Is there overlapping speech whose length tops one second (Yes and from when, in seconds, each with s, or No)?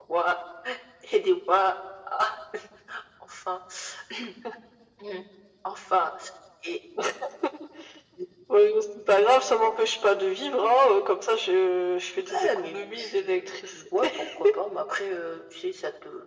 Yes, from 12.1 s